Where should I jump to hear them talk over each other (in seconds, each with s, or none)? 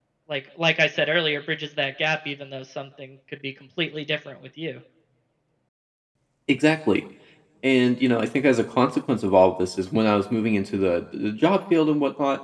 none